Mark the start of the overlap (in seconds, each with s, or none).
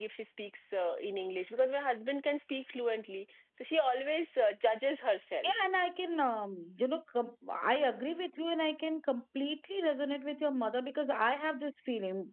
none